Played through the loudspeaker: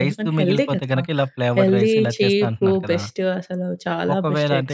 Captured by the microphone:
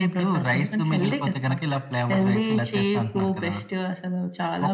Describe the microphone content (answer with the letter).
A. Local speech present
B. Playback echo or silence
B